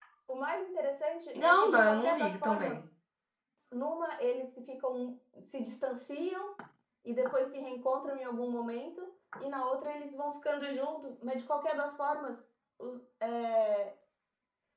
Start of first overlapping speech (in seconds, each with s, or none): 1.3 s